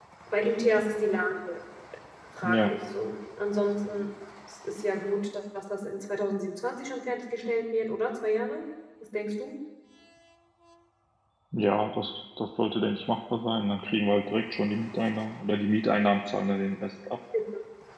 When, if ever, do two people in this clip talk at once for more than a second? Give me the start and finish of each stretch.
none

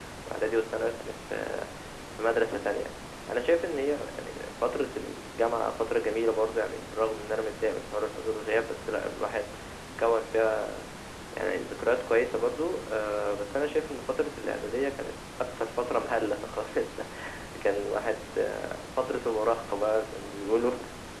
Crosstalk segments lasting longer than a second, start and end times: none

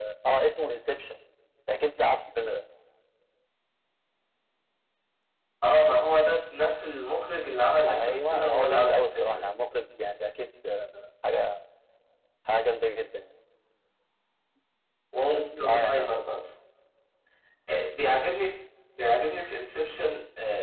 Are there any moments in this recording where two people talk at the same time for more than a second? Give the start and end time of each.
7.8-9.4

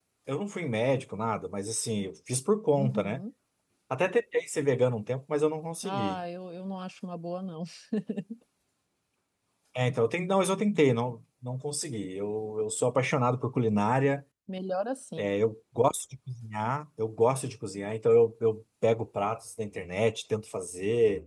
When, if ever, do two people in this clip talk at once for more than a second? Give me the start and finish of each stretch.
none

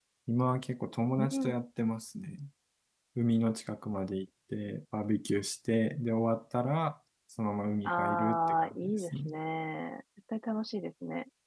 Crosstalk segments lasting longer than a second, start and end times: 7.8-9.3

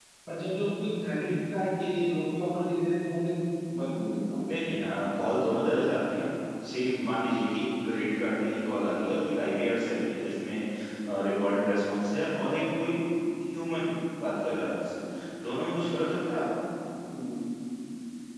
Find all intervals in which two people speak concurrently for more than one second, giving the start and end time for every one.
none

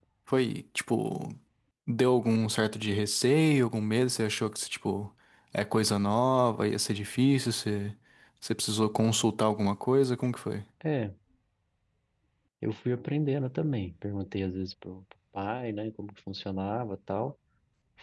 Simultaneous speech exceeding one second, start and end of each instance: none

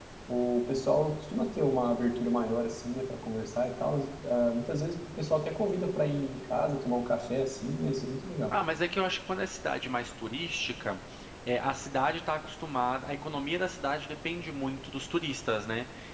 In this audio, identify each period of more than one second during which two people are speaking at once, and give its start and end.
none

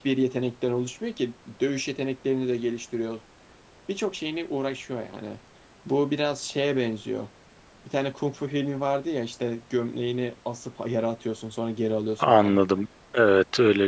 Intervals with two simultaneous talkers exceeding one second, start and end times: none

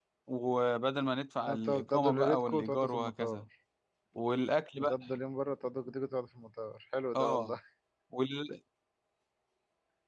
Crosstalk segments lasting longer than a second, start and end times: 1.4-3.4

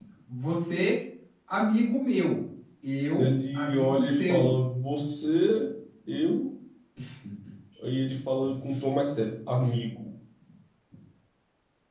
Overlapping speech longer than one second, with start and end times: 3.2-4.5

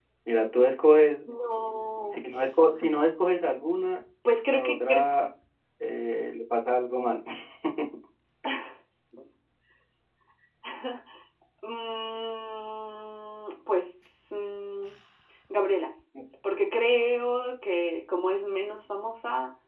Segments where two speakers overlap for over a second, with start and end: none

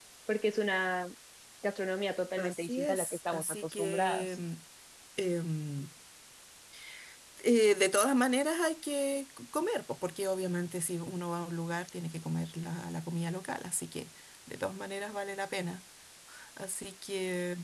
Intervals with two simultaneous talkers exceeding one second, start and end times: 2.4-4.4

